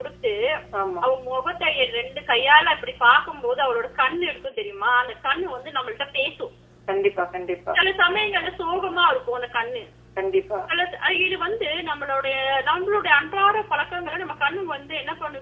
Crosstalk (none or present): none